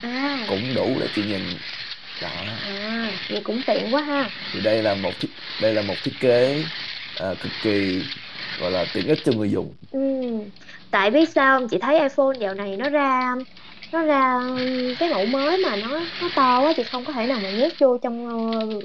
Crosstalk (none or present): none